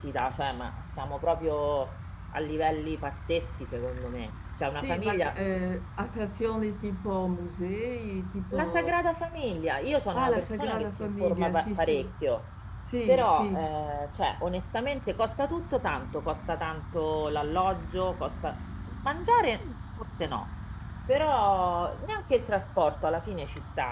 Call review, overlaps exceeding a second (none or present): present